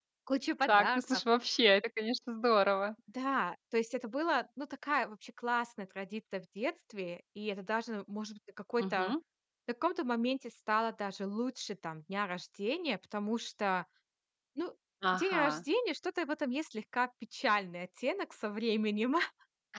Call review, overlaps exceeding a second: none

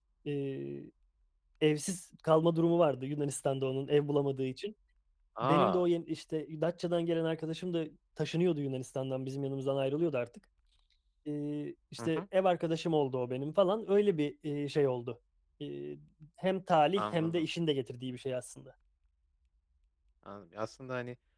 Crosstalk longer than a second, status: none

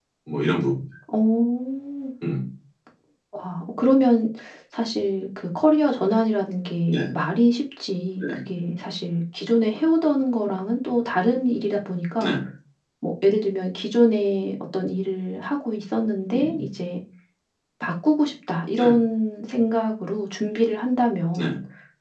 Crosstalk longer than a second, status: none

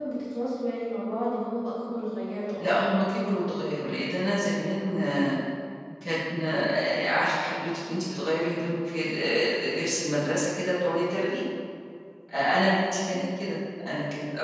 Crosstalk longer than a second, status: present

